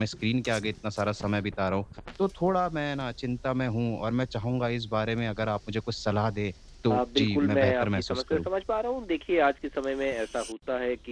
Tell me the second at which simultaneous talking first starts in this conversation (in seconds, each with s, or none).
6.9 s